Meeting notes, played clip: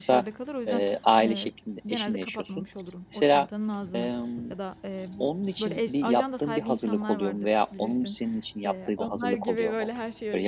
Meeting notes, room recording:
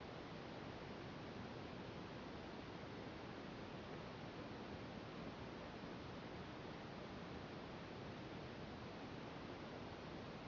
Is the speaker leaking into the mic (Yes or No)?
No